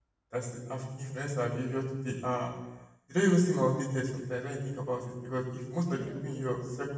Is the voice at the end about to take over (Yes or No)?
No